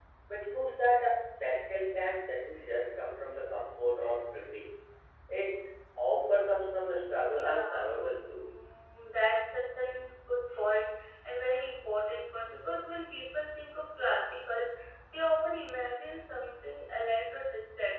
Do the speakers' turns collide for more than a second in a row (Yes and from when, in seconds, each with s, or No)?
Yes, from 7.2 s